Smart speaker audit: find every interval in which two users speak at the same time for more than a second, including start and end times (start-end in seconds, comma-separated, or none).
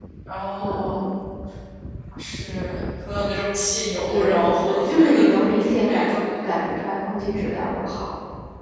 4.1-6.2